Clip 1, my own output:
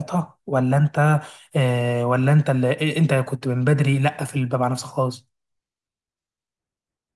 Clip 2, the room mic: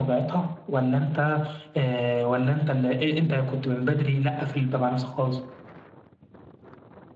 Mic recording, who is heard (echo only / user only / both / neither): echo only